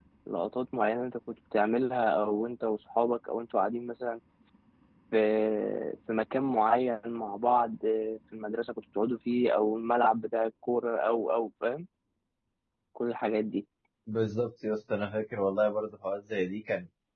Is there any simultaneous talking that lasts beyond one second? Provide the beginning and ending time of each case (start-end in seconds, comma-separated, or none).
none